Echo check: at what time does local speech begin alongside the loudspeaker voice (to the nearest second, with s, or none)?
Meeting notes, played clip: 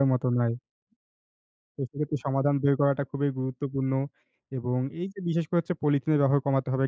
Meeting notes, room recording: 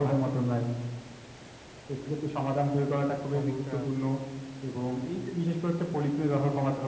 3 s